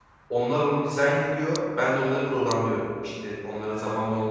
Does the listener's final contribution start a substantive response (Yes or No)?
No